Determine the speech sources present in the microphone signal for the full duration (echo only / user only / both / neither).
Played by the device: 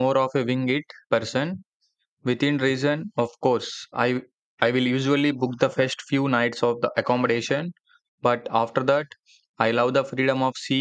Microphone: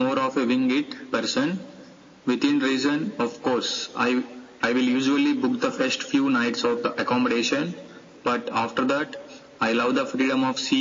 echo only